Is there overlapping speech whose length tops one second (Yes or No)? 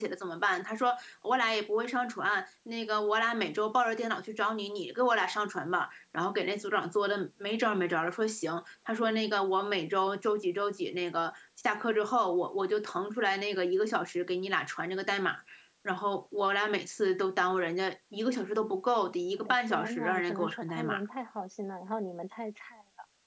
Yes